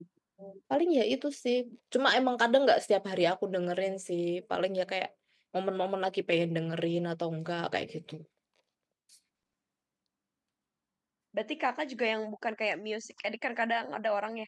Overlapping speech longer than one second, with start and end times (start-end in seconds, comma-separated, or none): none